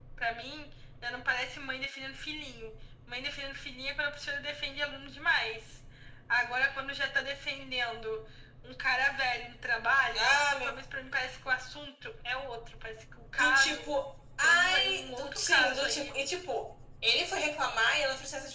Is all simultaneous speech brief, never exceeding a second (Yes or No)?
No